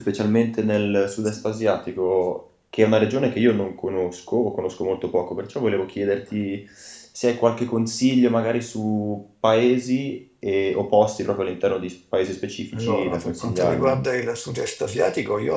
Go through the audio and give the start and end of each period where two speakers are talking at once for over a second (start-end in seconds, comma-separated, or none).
12.7-13.9